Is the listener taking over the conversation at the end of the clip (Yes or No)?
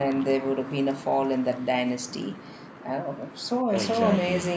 No